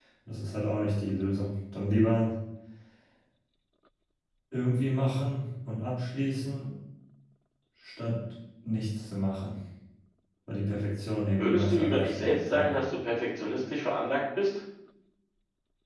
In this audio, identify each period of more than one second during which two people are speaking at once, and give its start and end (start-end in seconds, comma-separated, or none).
11.4-12.7